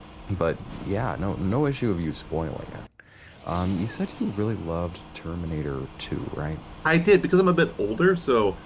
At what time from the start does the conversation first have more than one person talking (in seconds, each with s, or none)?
none